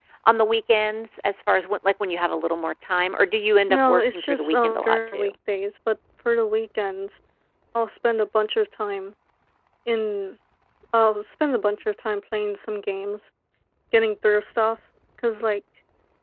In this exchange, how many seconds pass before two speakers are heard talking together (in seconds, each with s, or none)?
3.7 s